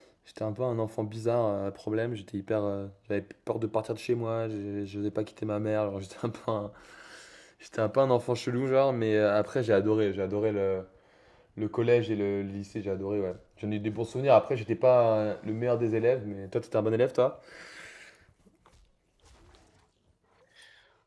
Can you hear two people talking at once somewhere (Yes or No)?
No